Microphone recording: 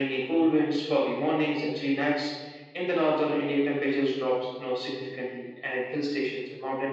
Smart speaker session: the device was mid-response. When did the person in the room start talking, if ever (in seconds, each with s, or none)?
none